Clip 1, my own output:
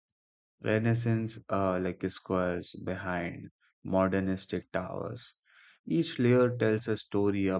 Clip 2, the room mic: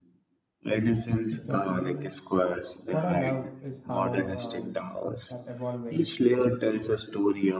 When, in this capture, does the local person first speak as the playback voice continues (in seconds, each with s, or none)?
1.3 s